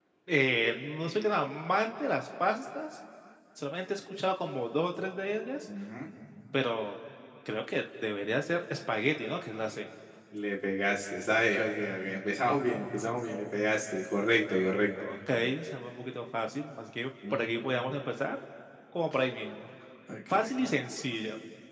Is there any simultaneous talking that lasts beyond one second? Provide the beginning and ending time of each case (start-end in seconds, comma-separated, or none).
none